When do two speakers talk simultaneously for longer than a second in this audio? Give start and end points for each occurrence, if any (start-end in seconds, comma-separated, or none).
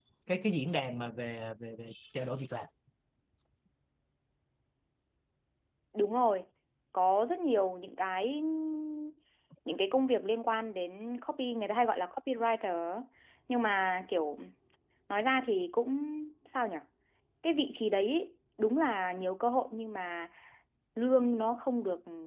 none